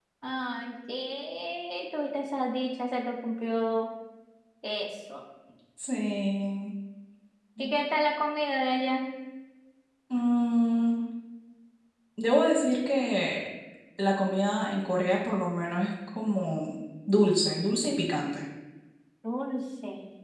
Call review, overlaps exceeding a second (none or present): none